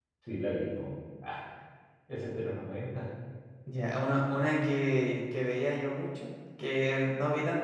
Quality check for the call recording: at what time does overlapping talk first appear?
none

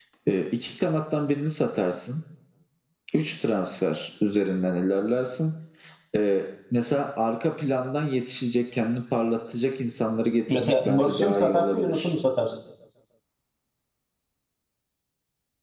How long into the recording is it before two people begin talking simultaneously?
10.5 s

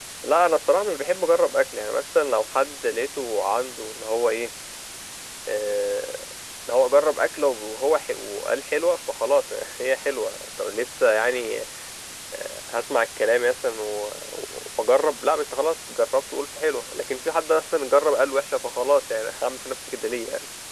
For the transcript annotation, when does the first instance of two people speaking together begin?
none

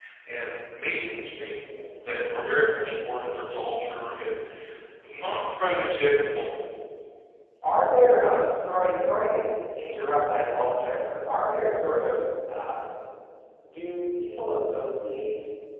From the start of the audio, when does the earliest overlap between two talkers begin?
none

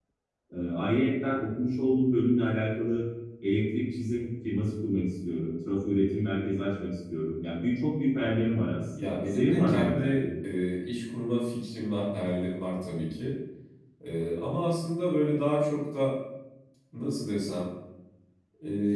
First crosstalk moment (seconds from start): 8.9 s

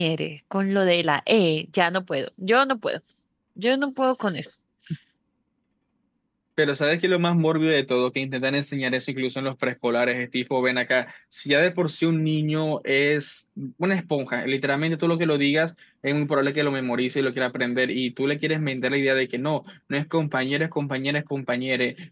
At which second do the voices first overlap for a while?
none

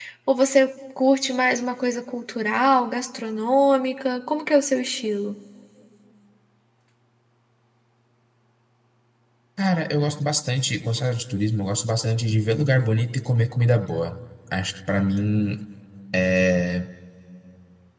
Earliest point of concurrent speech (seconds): none

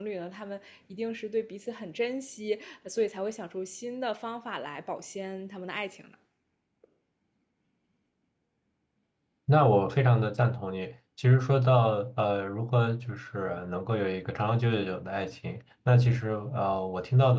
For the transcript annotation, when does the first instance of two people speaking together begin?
none

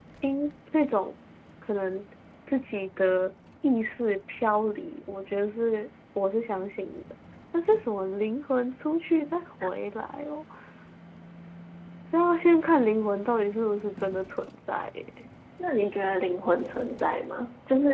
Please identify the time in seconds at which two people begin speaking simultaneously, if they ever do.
none

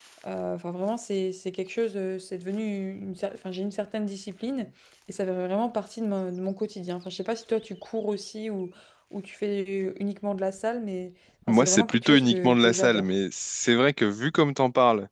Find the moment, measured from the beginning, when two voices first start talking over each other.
11.5 s

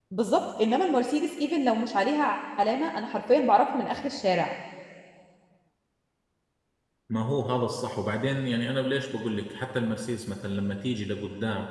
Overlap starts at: none

